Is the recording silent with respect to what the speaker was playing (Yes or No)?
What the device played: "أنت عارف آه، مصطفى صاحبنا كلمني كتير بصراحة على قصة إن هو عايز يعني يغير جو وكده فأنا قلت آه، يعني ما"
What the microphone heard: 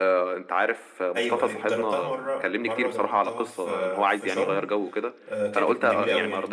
No